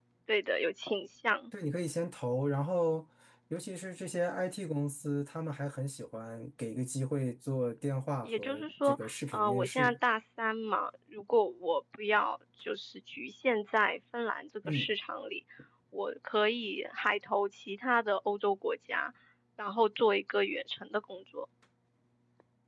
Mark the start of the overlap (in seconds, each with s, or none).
8.2 s